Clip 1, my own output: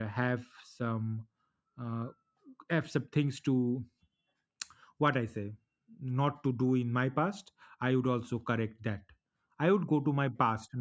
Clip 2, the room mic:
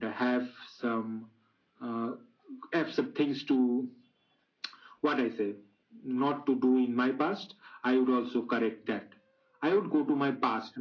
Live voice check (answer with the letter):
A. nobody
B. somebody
A